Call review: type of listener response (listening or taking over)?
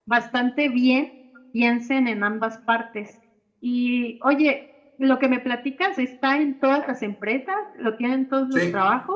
taking over